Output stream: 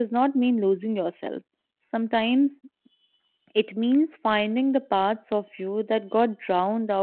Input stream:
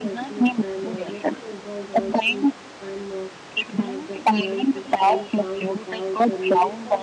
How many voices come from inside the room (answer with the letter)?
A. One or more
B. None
A